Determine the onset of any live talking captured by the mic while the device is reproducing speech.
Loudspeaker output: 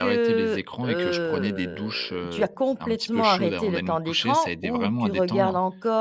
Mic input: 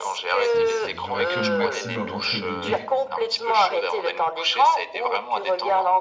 0 s

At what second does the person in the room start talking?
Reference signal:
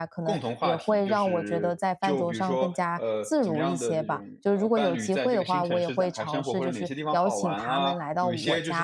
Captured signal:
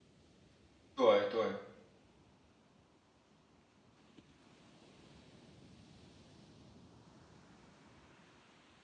1 s

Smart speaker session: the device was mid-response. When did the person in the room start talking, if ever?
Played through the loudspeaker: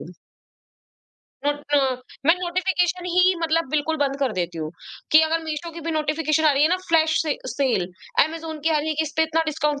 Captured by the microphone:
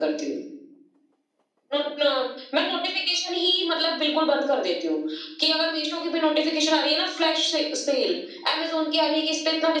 none

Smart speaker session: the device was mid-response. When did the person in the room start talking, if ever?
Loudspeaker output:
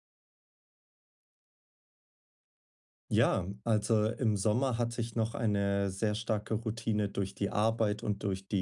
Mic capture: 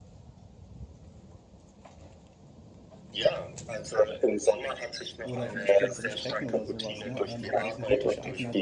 5 s

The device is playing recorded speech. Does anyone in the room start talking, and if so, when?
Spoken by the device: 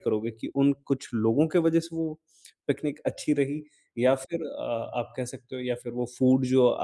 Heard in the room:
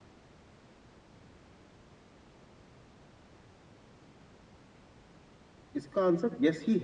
6 s

